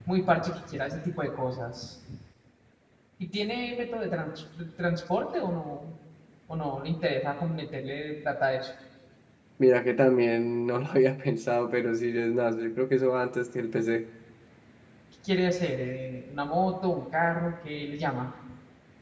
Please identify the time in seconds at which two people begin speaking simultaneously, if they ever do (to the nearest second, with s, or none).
none